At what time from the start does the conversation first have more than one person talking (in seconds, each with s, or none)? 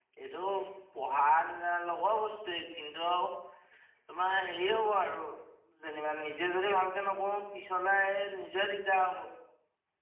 none